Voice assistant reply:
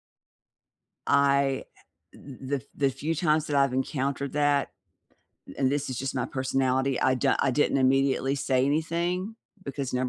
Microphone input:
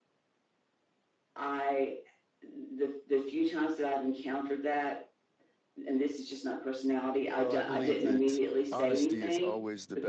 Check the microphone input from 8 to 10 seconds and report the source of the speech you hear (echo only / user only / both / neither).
both